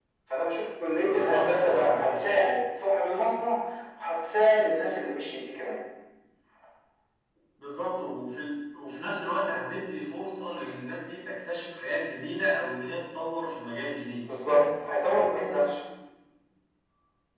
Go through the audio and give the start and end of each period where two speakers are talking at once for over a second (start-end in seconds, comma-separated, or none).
1.0-2.2